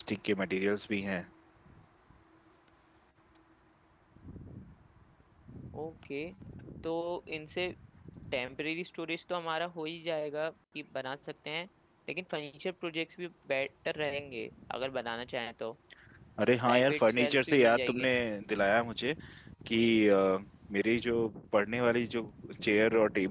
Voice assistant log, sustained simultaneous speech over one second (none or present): present